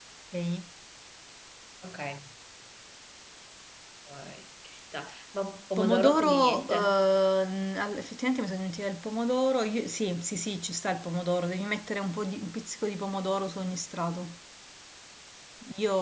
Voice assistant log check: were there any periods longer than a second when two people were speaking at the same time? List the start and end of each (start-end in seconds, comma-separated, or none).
5.8-7.0